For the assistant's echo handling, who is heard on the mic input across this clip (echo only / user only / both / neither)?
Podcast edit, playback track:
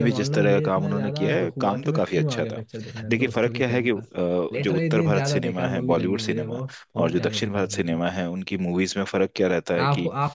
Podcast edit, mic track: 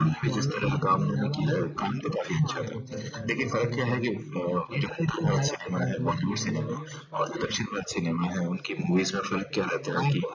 both